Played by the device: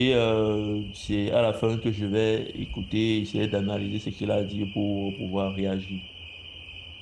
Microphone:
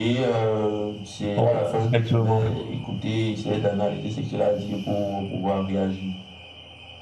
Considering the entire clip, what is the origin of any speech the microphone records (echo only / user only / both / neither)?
both